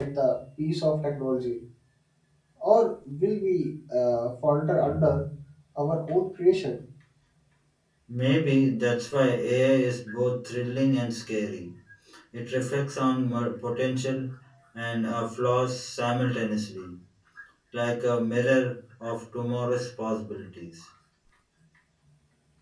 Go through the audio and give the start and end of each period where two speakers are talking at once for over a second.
none

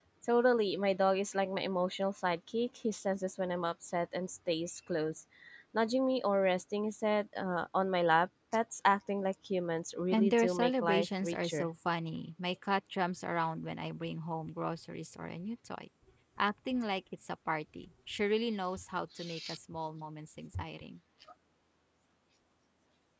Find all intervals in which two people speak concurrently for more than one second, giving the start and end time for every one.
10.1-11.7

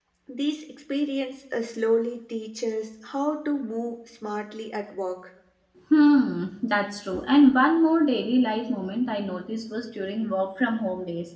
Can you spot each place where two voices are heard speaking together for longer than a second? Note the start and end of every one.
none

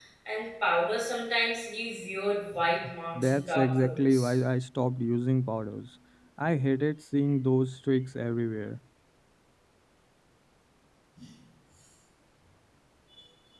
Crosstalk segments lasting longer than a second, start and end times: 3.2-4.4

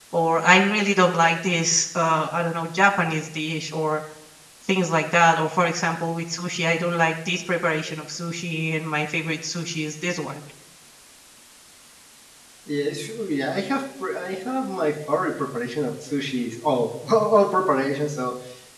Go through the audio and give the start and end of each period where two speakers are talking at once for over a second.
none

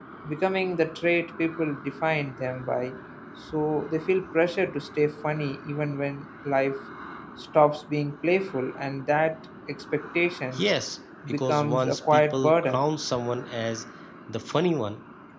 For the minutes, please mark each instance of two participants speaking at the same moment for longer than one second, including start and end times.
11.3-12.8

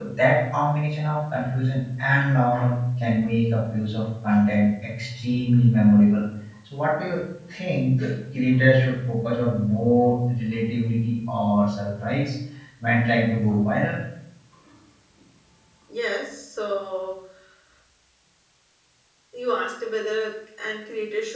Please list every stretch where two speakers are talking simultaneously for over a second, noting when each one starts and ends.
none

